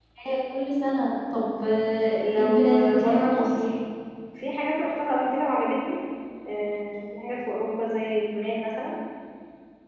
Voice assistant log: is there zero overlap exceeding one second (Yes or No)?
No